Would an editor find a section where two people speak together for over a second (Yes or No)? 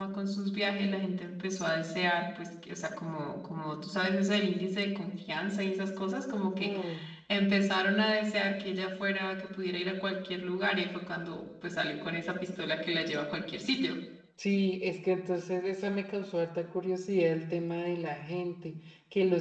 No